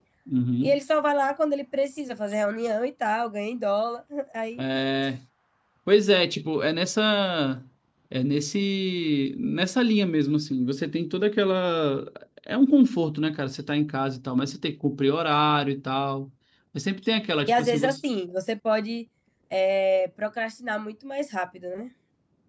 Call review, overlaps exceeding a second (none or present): none